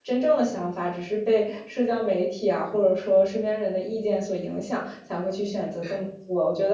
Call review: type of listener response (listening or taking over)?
listening